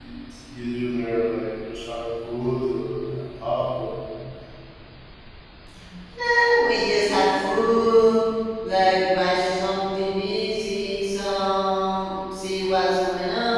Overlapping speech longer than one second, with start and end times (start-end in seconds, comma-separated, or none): none